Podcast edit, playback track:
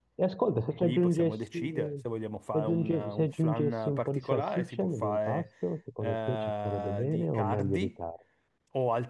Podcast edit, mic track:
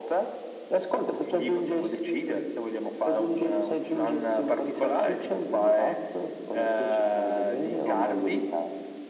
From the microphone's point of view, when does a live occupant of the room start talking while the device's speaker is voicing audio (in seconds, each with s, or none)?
none